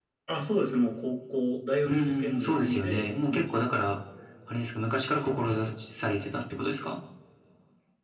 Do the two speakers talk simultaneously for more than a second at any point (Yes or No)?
Yes